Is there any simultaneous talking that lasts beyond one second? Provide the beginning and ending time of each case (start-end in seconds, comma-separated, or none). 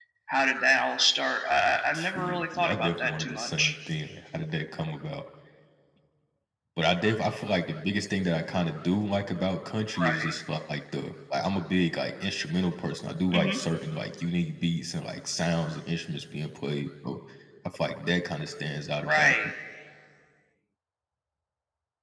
1.9-3.7